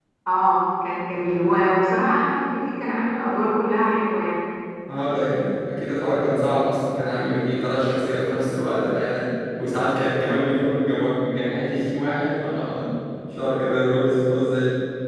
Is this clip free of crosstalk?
Yes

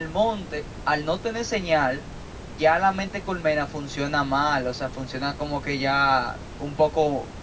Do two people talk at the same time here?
No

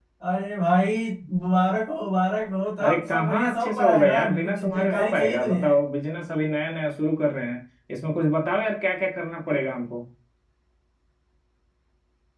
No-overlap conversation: No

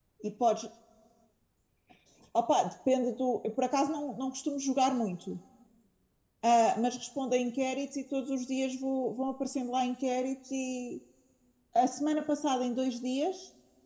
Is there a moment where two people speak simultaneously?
No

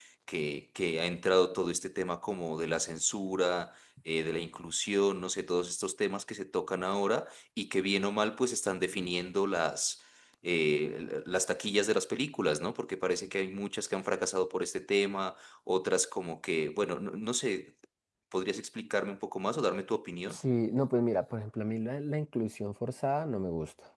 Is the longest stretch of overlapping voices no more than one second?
Yes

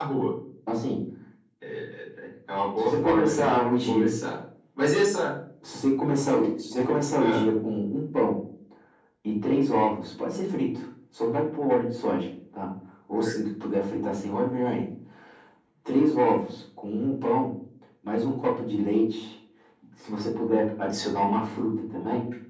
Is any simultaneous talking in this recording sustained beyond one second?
Yes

